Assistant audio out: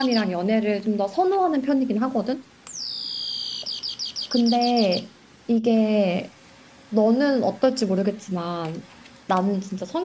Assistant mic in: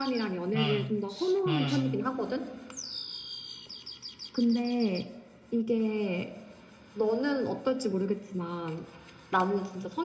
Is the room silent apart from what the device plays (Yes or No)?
No